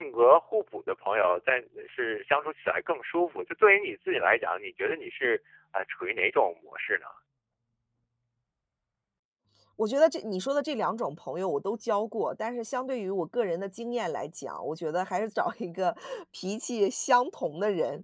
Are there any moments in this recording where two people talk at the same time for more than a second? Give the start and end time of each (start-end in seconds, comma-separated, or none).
none